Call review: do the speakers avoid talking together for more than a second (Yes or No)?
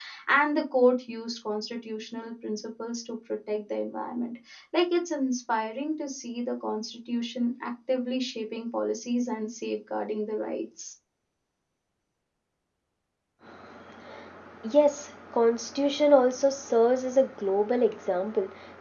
Yes